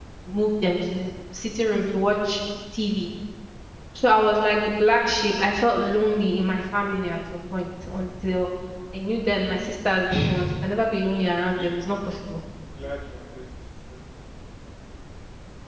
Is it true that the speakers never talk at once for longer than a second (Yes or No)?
Yes